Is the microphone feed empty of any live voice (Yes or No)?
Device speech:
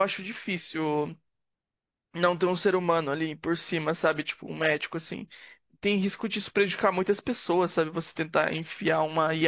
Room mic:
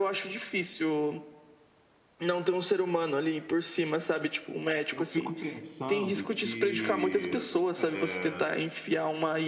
No